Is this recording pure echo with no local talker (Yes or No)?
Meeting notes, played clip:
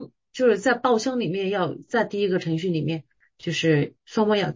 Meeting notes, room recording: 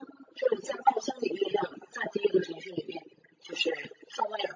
Yes